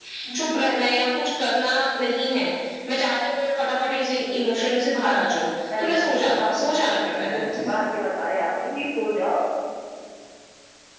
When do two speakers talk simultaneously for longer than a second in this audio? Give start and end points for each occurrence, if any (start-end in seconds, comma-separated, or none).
5.8-7.7